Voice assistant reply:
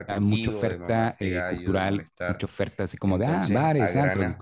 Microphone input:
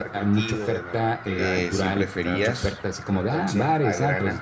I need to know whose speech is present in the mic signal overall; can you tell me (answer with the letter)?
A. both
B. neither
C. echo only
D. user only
A